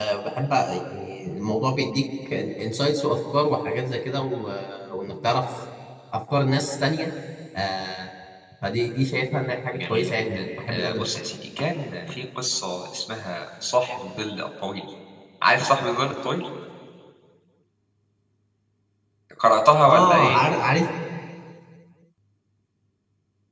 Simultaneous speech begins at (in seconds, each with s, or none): 9.7 s